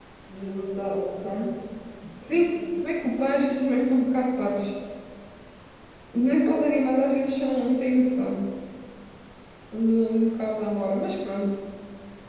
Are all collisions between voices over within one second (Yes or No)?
Yes